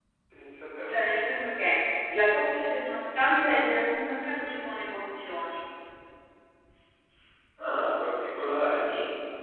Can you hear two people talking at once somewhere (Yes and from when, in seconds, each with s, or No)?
No